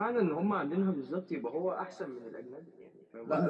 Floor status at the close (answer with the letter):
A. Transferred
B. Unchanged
A